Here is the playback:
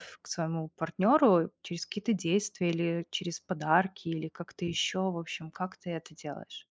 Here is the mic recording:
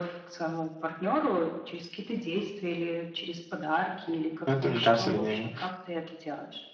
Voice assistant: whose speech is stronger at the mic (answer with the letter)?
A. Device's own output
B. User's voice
B